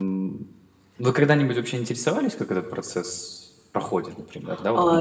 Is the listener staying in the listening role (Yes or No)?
No